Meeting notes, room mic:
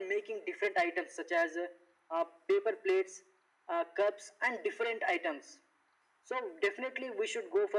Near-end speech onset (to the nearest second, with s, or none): none